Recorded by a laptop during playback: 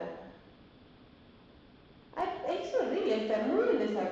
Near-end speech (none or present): none